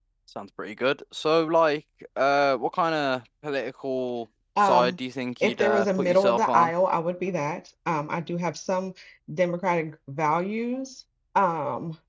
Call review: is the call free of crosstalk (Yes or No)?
No